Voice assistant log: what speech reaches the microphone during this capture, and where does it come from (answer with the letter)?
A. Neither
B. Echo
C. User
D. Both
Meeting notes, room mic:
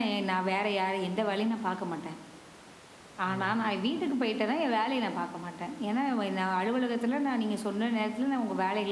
D